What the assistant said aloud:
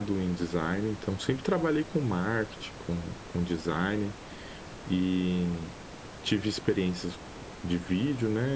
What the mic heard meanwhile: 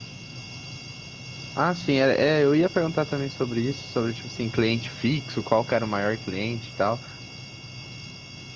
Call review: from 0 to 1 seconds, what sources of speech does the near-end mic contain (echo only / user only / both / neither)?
neither